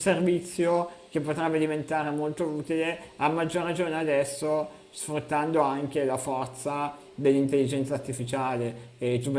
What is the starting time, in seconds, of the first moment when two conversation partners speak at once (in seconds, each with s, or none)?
none